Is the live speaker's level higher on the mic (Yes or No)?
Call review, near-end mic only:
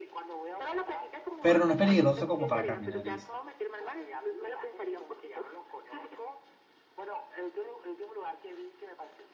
Yes